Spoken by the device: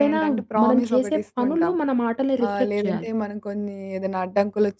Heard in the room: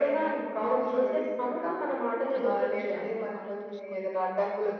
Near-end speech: present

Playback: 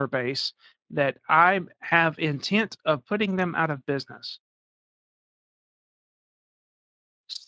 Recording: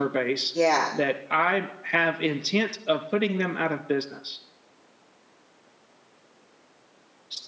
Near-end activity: present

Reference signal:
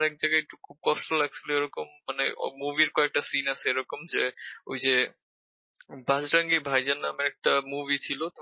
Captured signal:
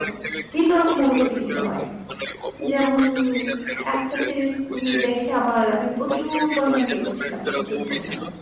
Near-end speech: present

